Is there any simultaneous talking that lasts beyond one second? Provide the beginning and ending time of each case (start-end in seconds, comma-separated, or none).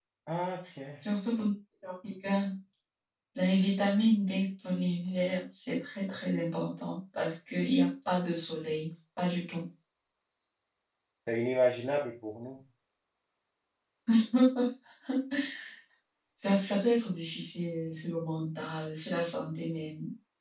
none